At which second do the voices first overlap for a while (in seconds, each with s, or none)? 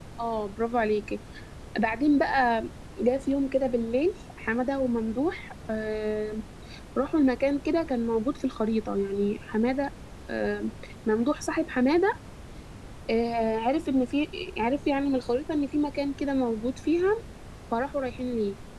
none